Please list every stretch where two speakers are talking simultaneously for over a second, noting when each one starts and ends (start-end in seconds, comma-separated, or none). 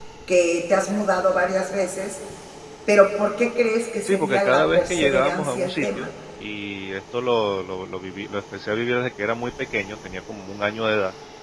4.1-6.1